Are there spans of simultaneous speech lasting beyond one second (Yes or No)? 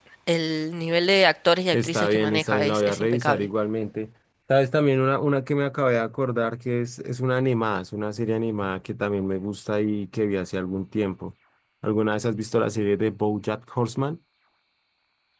Yes